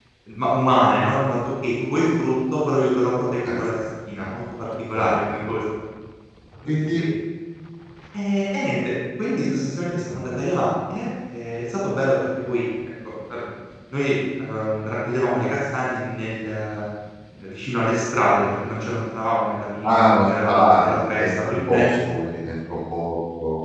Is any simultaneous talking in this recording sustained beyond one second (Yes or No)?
Yes